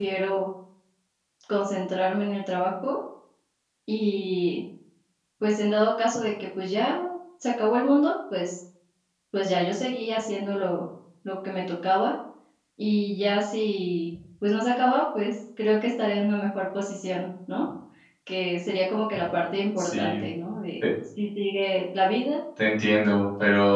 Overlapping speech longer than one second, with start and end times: none

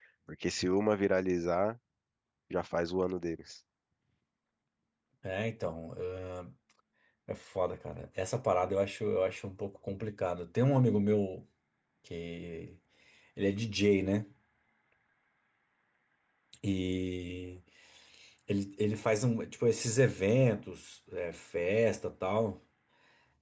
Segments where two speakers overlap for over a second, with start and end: none

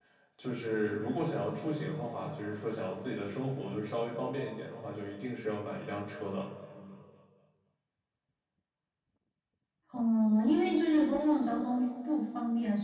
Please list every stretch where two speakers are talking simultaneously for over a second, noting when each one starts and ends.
none

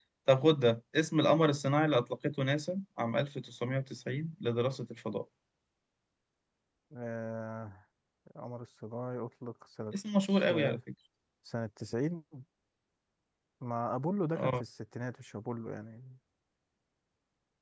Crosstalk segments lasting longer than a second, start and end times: none

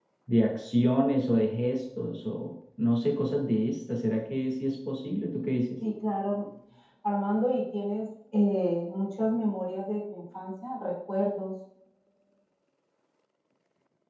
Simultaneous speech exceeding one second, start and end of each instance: none

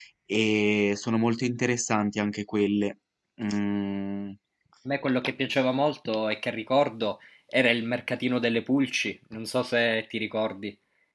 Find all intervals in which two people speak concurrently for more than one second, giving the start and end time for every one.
none

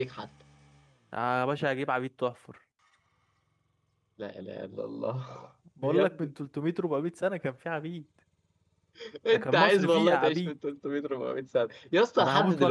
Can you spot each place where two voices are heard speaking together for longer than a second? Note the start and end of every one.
9.3-10.6

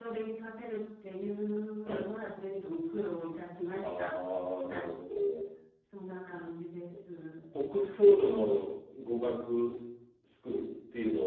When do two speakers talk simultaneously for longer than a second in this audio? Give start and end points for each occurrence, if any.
none

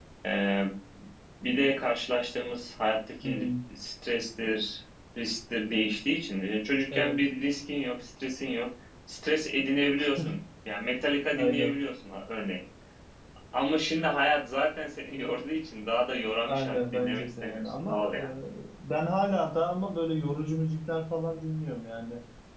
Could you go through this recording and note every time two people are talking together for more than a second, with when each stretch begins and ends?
16.5-18.1

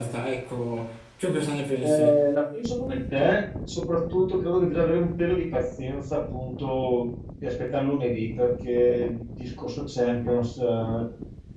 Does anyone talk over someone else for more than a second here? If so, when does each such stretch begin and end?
none

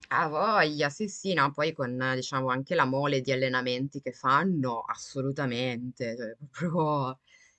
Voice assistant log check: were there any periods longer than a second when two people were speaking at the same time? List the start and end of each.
none

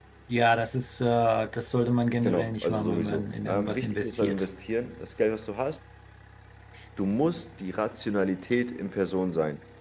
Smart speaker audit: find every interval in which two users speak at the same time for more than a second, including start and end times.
2.2-4.5

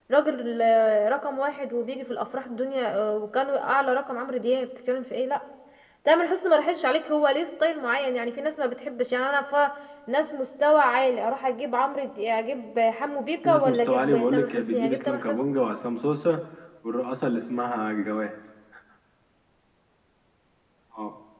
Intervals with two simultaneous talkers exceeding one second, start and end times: 13.4-15.4

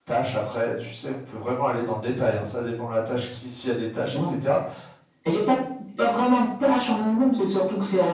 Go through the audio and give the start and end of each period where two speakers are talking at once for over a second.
none

